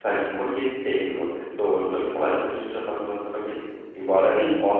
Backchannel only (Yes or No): Yes